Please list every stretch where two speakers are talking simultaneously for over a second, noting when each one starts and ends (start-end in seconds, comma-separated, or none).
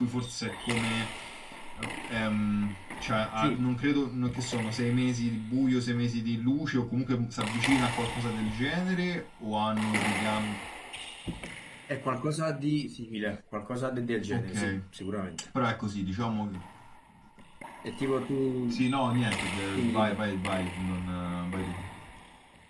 none